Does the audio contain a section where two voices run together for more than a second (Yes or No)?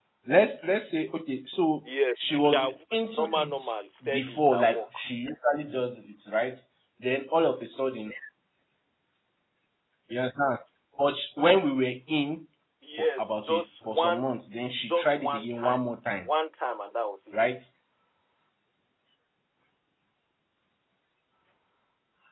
Yes